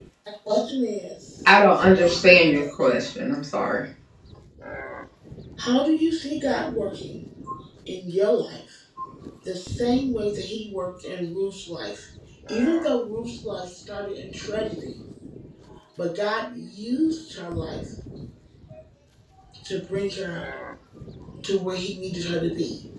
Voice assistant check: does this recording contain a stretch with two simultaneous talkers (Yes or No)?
Yes